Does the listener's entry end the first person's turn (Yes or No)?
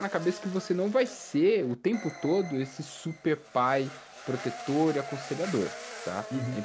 No